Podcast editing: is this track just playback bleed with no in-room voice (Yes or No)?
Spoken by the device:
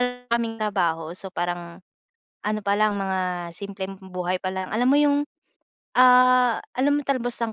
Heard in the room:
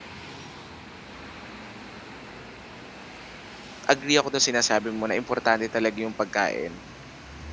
No